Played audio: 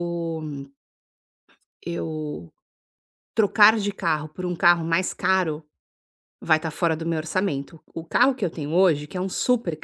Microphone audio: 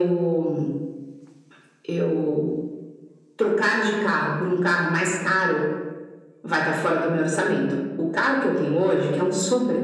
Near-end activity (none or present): none